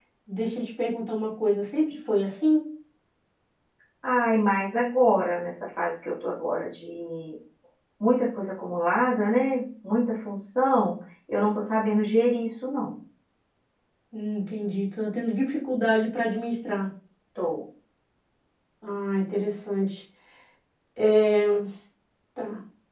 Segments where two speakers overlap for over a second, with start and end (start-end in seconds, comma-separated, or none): none